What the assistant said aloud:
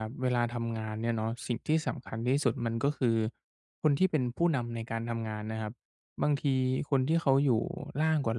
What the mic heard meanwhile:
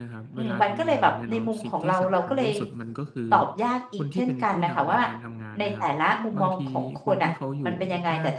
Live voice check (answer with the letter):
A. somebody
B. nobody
A